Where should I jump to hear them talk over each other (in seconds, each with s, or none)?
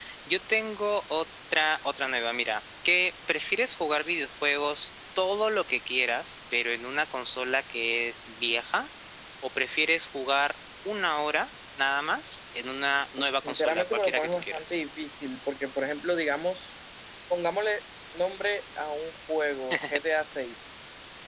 13.2 s